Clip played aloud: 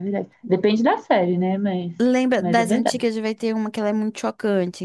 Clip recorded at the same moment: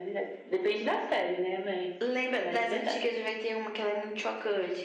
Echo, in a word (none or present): present